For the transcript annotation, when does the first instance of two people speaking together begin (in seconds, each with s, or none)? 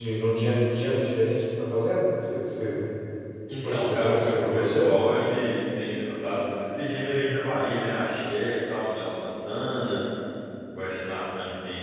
3.6 s